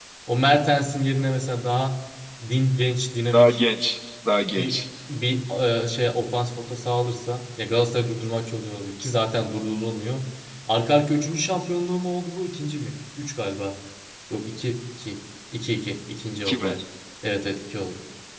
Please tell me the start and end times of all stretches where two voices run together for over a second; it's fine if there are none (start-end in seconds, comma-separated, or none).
none